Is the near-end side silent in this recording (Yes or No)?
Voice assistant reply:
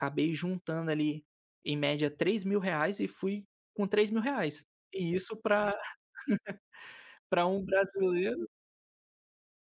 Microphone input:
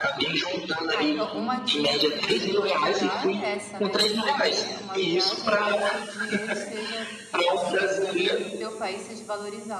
No